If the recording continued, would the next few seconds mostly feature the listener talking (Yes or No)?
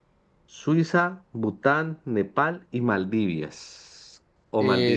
Yes